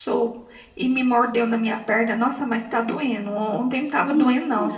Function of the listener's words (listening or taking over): listening